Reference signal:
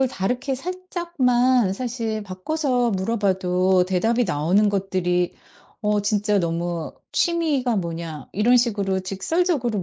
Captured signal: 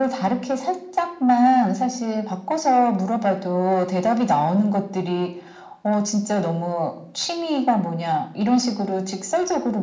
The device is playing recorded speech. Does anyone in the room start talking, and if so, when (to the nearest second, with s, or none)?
none